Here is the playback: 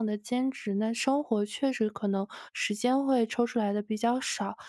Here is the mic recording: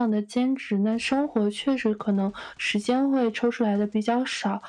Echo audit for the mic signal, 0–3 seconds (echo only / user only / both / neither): echo only